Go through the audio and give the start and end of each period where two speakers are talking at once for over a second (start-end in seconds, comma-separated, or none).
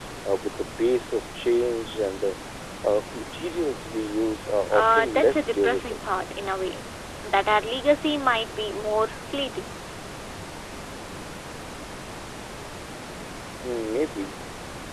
4.7-6.0